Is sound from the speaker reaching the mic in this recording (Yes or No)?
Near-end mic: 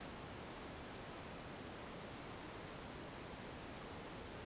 No